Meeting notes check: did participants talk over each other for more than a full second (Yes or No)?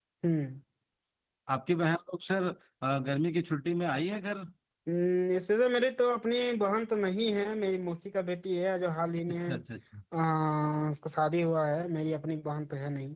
No